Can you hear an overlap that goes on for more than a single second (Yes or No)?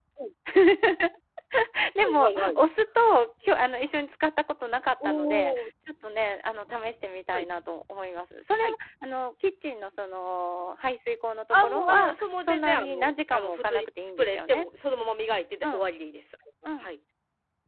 Yes